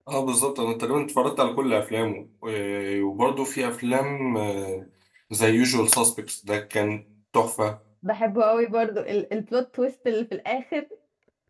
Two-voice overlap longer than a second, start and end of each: none

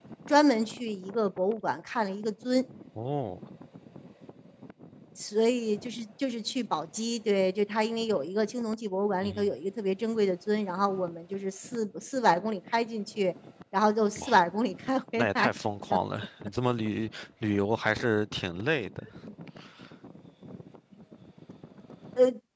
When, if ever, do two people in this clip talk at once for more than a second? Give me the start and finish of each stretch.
none

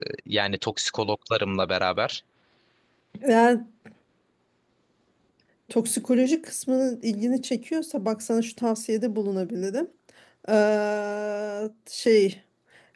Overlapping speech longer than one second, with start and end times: none

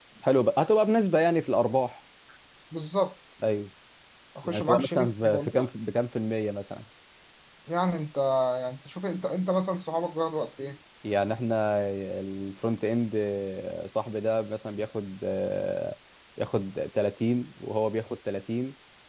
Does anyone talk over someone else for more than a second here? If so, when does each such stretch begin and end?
4.4-5.7

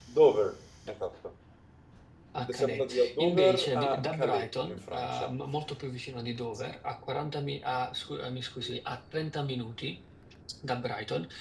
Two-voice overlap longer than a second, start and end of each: 2.5-5.3

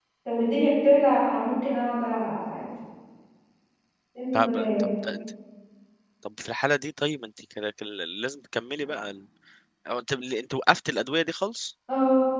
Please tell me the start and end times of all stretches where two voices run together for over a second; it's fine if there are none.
none

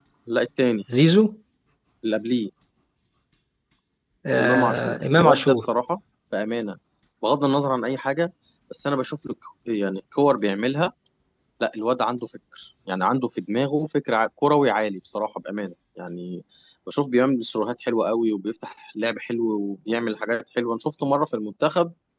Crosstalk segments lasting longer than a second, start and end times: 4.4-5.7

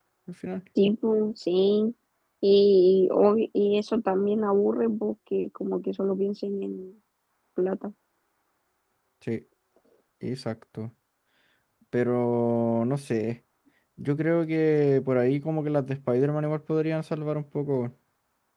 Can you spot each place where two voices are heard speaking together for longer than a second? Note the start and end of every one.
none

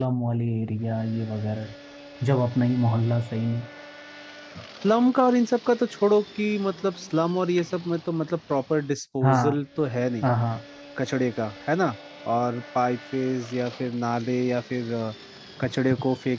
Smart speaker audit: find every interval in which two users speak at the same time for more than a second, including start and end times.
none

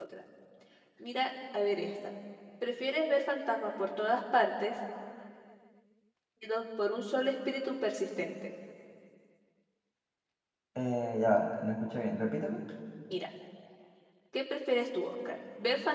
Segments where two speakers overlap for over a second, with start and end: none

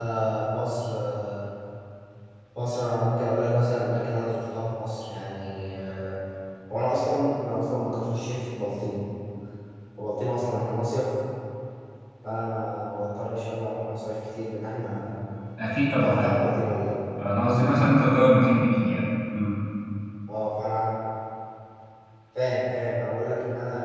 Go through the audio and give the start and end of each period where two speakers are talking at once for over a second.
none

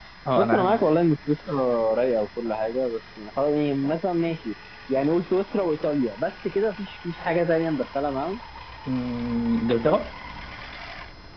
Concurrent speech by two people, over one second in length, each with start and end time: none

